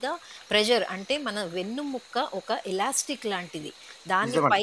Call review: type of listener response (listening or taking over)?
listening